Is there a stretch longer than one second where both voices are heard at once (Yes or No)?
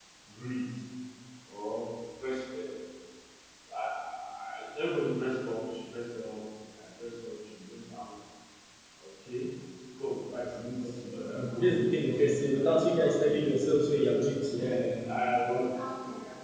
Yes